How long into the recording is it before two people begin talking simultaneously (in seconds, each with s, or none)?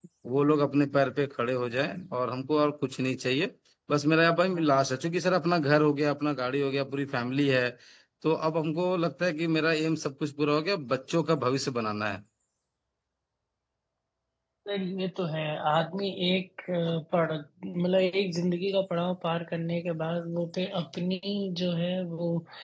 none